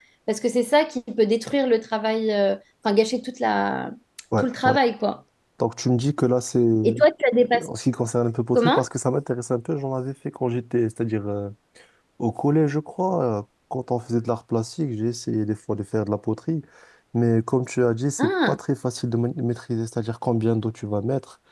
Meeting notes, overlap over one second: none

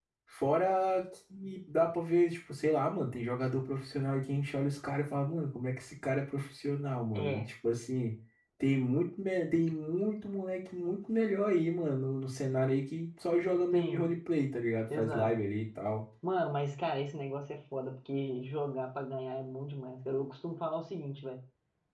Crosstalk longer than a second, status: none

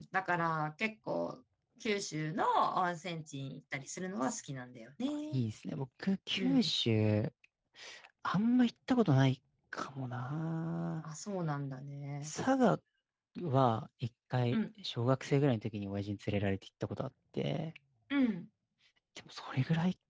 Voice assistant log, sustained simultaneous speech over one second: none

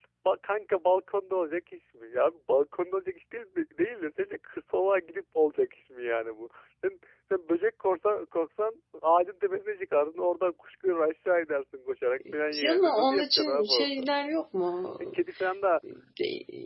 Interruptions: present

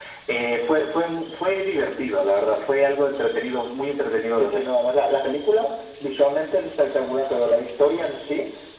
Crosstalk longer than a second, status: none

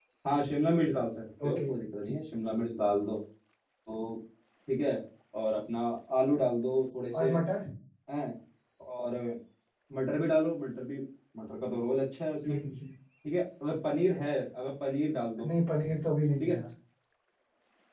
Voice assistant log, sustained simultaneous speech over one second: none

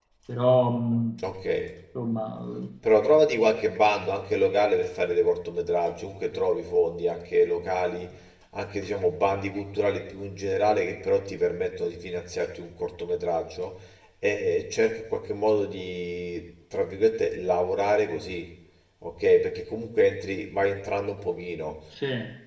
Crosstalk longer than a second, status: none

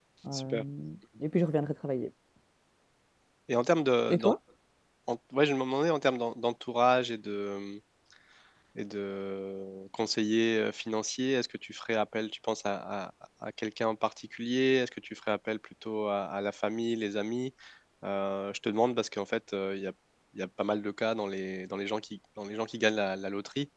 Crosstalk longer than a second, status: none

